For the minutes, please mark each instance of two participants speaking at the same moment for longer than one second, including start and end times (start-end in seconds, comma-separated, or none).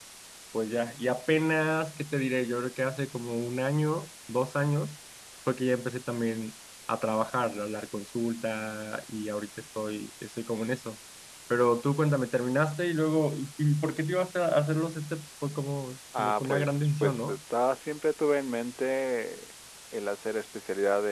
16.2-17.4